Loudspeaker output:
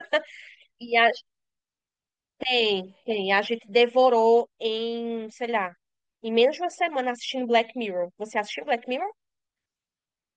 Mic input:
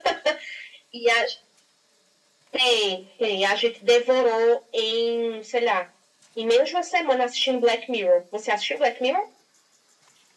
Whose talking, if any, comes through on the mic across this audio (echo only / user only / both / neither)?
echo only